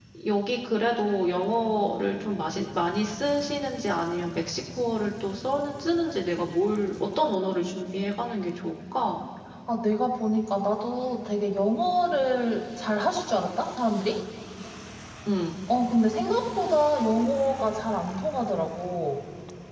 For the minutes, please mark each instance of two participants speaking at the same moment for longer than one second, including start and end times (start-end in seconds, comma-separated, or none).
none